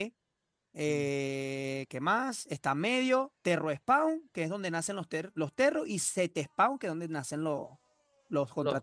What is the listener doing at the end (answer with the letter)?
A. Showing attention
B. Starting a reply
B